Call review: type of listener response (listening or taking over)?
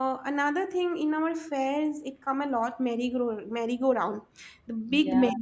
listening